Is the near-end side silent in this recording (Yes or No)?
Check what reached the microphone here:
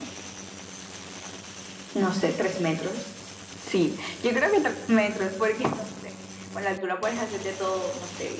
Yes